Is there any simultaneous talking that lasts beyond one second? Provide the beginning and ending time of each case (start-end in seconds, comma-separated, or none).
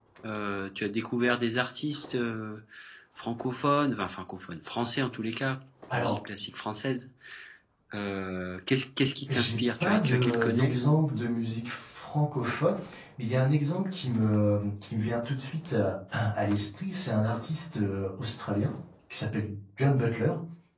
9.3-10.8